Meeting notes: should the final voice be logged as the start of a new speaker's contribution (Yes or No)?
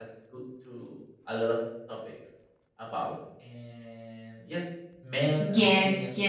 Yes